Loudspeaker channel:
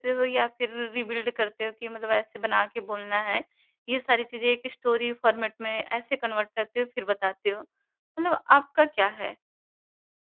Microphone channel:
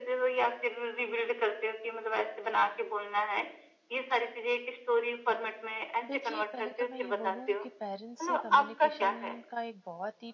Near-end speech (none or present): present